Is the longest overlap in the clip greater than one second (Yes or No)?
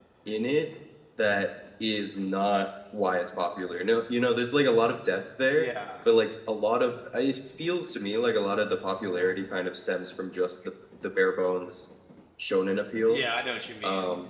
No